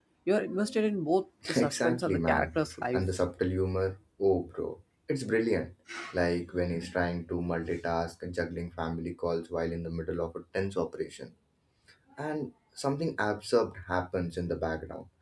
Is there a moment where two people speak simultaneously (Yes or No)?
Yes